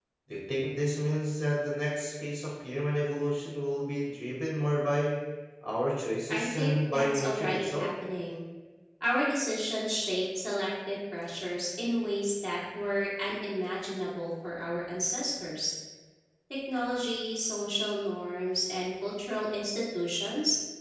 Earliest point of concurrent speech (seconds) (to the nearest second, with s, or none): 6 s